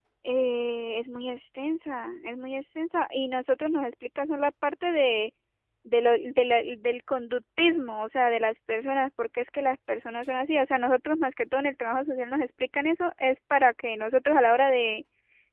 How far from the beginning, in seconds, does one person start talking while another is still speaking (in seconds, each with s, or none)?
none